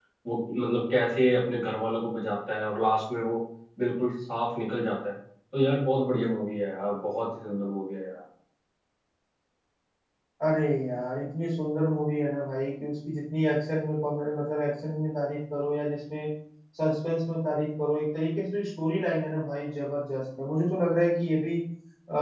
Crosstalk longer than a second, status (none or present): none